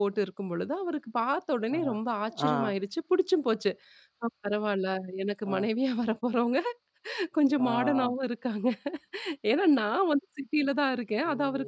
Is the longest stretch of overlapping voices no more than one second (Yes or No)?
Yes